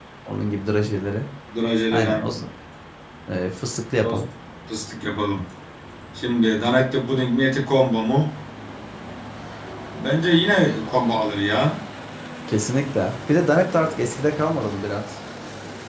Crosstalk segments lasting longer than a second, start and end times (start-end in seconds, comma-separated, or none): none